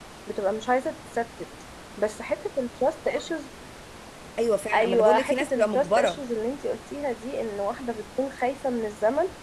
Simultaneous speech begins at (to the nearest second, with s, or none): 5 s